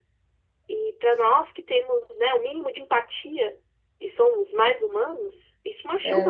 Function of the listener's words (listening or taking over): listening